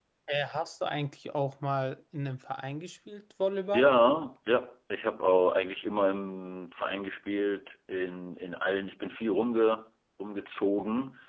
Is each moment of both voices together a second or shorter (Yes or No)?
Yes